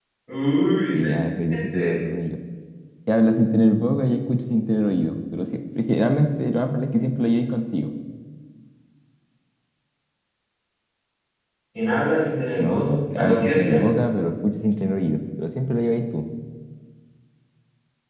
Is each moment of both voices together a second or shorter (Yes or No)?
No